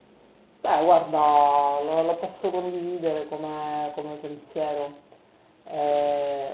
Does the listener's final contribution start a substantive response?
No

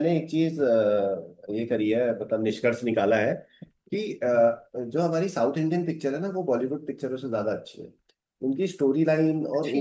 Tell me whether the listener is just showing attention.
Yes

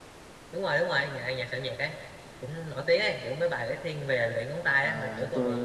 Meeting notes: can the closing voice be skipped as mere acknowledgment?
No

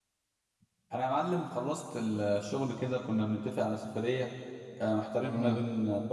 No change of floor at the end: Yes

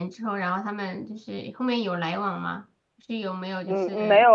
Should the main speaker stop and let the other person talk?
Yes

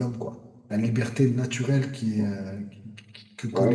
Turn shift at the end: Yes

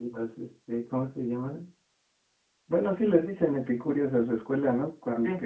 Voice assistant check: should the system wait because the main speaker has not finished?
Yes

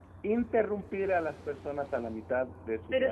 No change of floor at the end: No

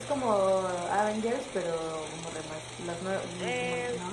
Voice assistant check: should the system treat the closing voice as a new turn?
Yes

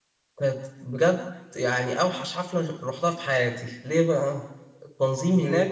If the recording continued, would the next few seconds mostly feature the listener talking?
No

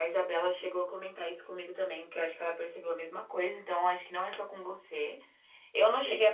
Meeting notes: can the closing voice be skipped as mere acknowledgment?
Yes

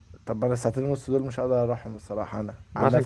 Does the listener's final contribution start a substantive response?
Yes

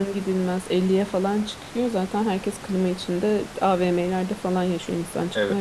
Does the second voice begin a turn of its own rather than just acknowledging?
Yes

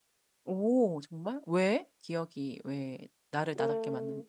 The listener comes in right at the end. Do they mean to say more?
Yes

